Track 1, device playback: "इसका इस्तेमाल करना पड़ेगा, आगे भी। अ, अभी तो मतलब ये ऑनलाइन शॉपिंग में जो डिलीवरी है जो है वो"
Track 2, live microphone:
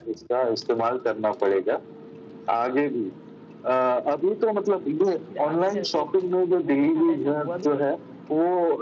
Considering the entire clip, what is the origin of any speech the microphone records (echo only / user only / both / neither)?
both